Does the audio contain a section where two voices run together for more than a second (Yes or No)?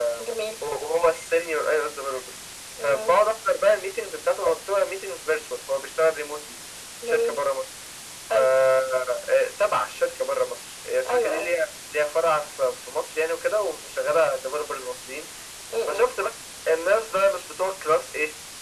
No